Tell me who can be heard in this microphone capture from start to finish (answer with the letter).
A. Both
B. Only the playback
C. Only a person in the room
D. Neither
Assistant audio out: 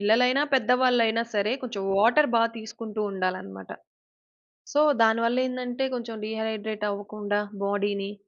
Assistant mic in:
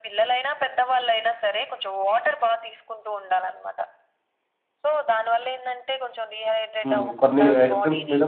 A